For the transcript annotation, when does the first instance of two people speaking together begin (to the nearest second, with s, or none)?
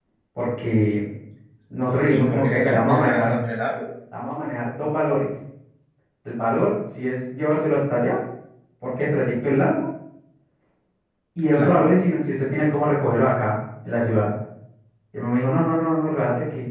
2 s